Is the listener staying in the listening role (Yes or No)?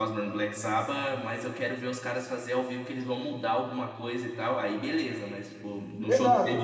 Yes